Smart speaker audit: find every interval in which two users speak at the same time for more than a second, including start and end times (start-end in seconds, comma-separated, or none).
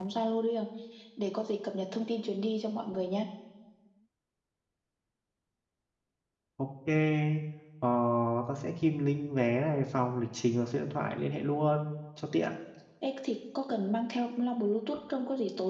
none